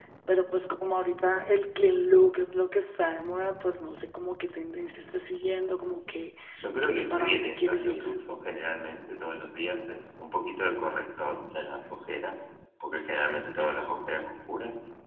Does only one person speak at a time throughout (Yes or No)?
No